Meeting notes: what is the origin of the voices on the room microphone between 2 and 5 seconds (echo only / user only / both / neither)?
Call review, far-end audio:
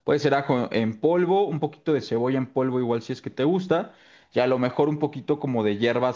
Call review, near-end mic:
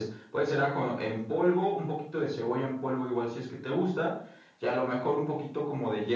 echo only